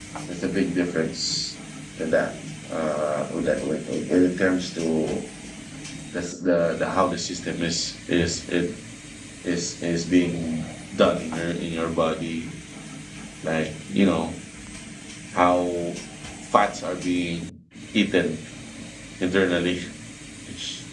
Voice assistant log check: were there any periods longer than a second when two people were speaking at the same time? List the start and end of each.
none

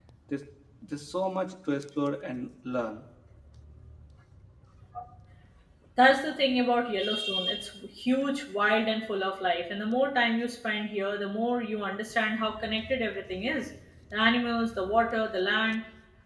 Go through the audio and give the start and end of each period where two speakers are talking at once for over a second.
none

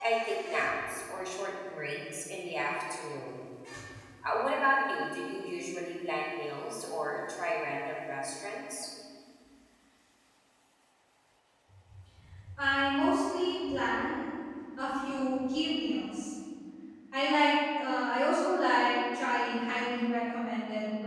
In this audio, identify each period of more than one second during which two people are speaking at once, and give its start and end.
none

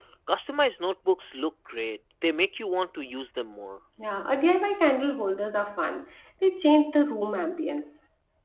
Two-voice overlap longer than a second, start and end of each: none

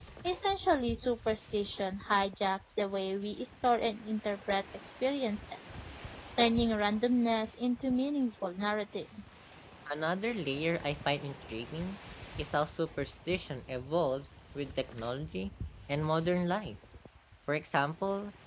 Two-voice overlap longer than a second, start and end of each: none

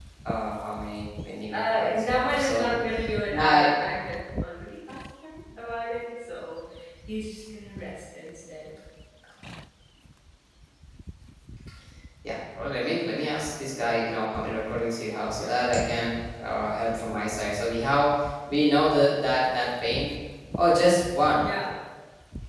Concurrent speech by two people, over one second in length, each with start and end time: 1.5-2.7

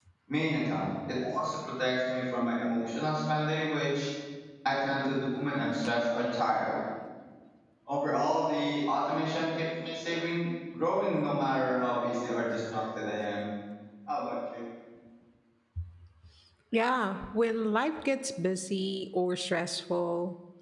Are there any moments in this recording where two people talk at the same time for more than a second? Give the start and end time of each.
none

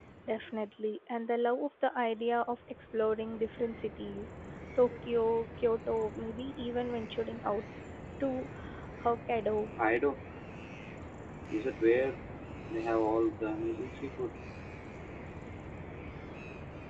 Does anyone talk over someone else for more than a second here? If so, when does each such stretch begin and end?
none

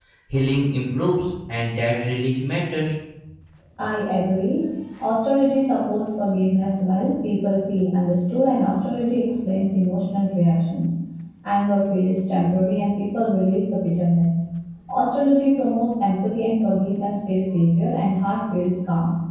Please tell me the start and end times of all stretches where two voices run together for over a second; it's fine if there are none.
none

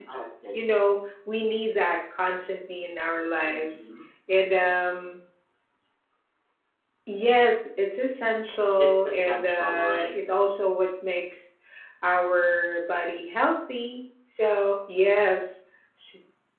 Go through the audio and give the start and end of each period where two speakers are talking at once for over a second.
8.8-10.1

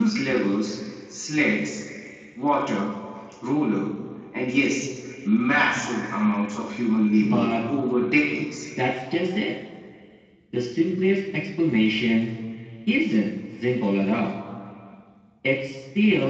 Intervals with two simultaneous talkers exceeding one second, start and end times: none

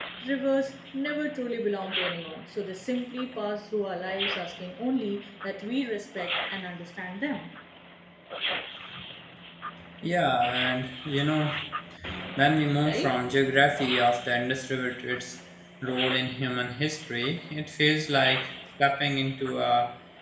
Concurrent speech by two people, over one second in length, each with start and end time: none

